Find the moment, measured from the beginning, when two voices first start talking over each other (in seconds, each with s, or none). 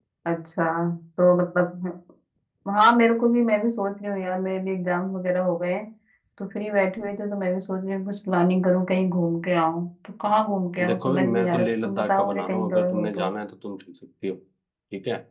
10.8 s